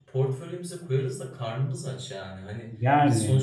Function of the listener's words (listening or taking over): listening